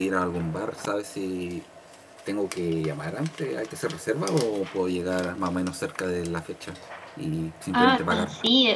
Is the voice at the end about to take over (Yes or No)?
Yes